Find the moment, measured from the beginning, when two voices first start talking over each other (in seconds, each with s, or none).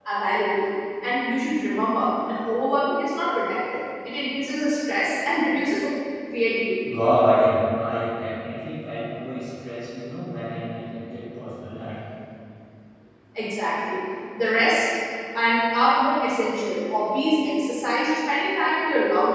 none